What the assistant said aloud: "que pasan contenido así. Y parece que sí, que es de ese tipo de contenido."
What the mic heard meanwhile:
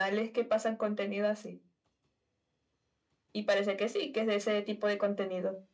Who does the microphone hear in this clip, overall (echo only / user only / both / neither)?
echo only